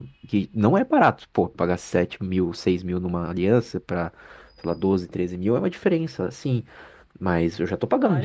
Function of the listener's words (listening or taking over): taking over